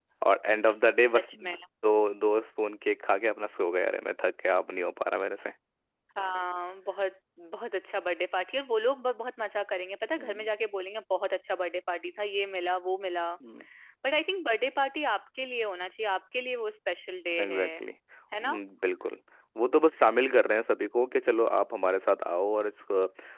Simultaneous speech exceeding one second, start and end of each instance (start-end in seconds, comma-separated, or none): none